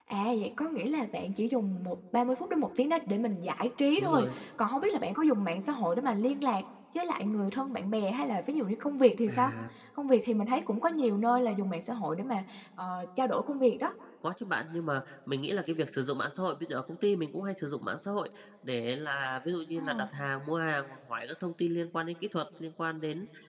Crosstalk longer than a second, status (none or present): none